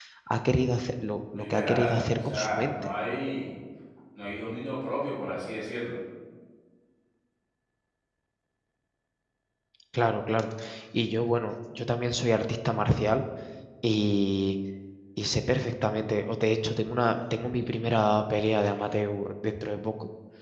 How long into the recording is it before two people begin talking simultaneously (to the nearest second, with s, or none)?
1 s